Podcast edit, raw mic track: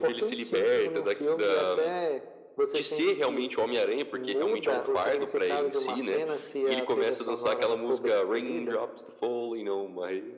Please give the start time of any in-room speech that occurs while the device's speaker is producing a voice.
none

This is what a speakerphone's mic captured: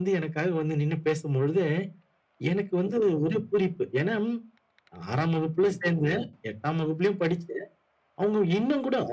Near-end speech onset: none

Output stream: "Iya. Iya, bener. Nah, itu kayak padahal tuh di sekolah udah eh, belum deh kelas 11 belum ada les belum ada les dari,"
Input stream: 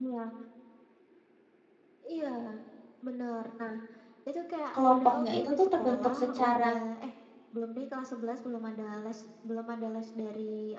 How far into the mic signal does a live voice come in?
4.7 s

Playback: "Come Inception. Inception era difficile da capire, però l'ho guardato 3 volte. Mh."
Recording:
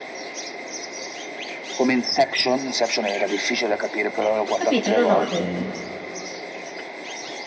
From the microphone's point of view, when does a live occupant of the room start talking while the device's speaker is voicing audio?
4.5 s

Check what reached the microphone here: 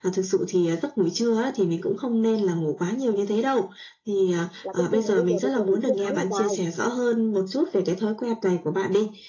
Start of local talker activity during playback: 4.6 s

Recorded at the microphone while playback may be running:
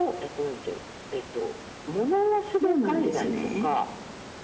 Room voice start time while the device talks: 2.6 s

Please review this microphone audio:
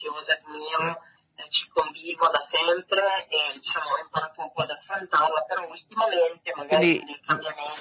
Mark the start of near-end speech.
6.7 s

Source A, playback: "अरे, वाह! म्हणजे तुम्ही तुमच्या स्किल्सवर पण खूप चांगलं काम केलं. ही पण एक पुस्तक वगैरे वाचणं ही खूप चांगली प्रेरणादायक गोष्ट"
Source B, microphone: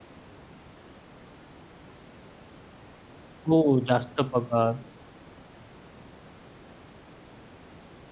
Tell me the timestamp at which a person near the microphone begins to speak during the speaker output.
3.5 s

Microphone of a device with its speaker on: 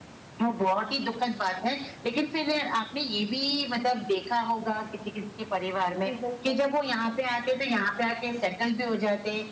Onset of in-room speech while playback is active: 6.0 s

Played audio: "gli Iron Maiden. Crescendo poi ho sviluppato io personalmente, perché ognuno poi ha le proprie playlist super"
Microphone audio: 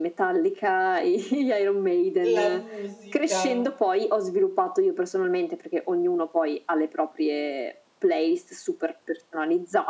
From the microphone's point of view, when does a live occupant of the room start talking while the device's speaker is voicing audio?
2.2 s

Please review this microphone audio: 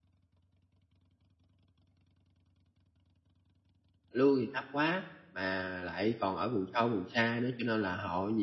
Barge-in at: 4.1 s

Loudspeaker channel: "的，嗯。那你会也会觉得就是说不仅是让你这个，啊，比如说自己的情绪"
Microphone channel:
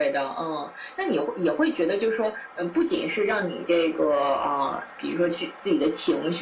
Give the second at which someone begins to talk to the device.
none

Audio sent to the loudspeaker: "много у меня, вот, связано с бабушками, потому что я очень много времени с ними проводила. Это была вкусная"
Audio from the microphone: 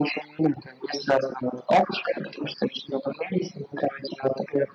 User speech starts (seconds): none

